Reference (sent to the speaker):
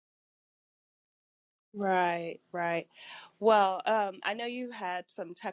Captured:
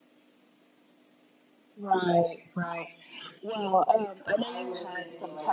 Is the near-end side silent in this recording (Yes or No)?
No